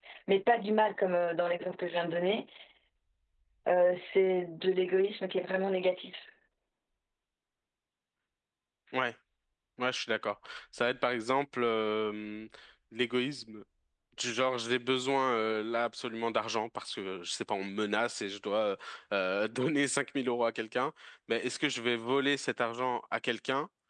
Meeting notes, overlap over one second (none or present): none